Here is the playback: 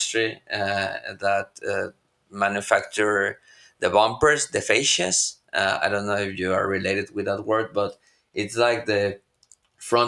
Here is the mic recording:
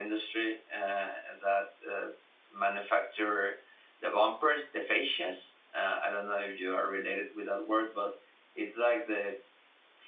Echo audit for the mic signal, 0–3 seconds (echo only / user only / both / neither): echo only